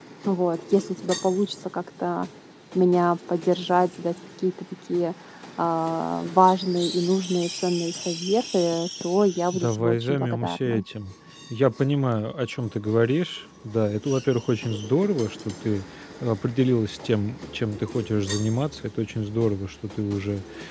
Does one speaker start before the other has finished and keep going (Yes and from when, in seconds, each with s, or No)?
Yes, from 9.5 s